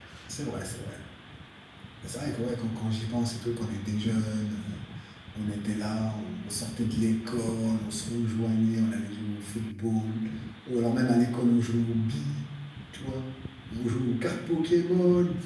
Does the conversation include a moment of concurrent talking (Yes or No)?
No